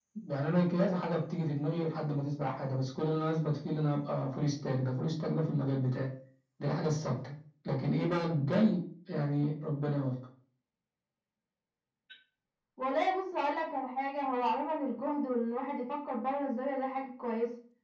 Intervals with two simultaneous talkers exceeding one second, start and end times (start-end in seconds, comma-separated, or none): none